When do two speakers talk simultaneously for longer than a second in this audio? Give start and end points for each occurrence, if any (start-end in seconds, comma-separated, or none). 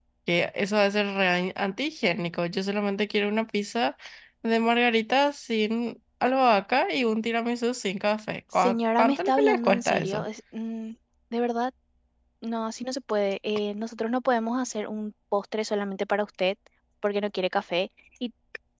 8.6-10.2